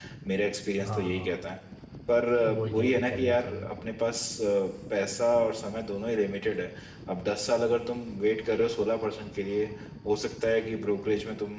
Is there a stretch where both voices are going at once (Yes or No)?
Yes